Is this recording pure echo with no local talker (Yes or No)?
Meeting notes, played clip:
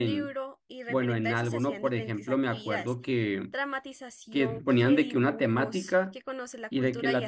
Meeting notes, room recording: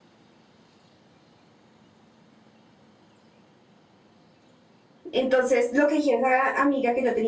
No